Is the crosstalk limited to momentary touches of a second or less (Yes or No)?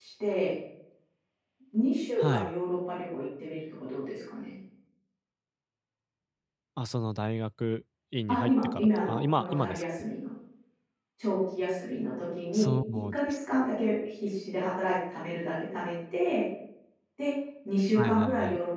No